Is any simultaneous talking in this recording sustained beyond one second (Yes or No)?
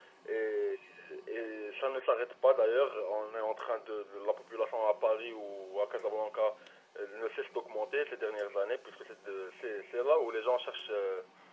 No